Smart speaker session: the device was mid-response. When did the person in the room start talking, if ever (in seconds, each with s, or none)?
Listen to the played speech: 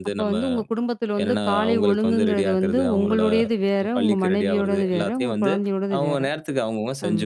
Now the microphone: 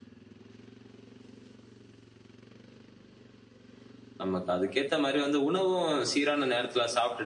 4.2 s